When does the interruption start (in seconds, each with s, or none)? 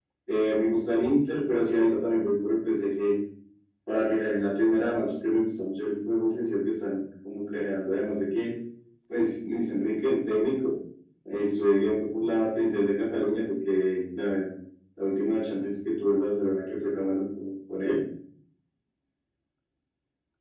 none